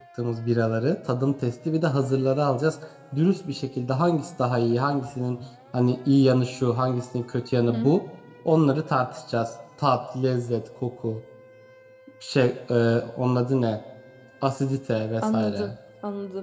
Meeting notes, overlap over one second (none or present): none